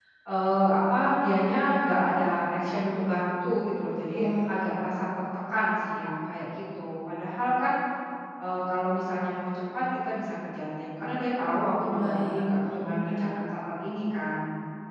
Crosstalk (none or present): present